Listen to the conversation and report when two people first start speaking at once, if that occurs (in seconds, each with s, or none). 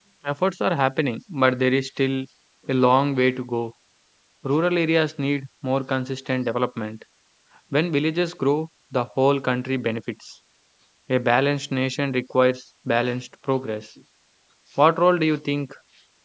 none